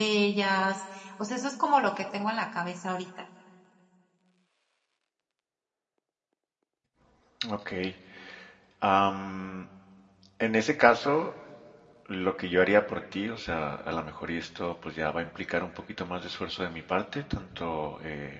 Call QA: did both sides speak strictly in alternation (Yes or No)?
Yes